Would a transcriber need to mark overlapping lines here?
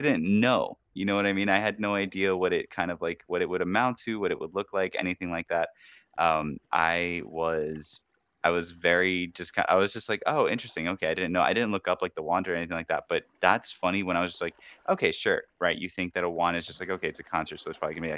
No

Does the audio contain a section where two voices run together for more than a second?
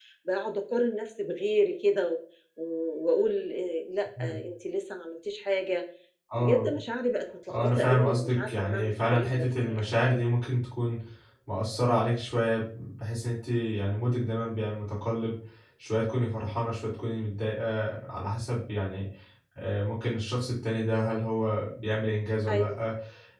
Yes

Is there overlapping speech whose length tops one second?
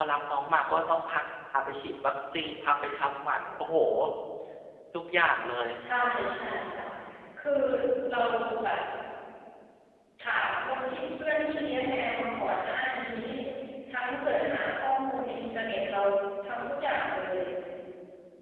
No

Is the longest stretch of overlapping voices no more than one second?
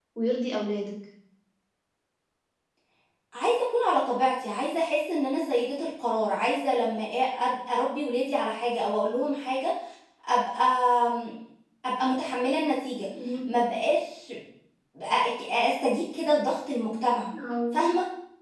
Yes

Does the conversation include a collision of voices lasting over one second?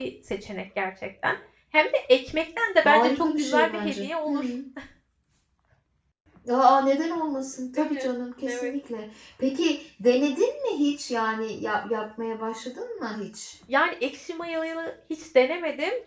Yes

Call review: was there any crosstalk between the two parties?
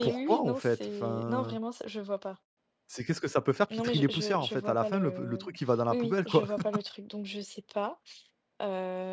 Yes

